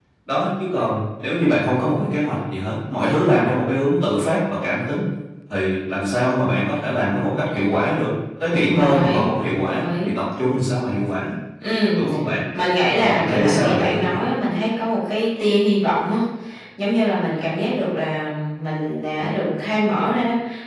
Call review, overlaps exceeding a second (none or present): present